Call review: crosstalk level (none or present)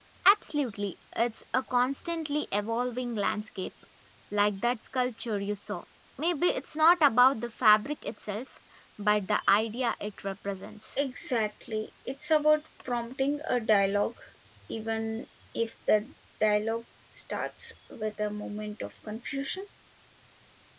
none